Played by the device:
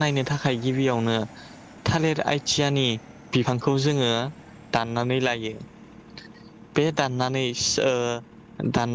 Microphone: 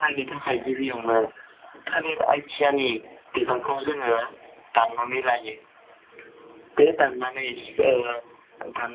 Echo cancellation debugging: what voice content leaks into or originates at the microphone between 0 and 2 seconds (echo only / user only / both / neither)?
echo only